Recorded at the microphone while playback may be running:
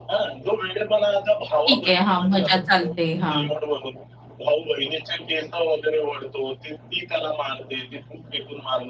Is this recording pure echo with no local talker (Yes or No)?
No